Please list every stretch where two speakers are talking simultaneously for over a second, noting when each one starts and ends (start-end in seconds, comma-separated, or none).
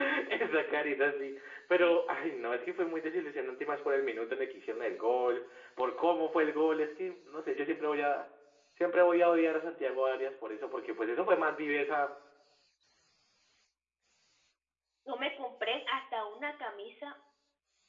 none